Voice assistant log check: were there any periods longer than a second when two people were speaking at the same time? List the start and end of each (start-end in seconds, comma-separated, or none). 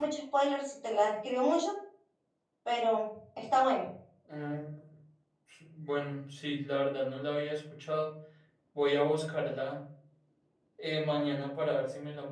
none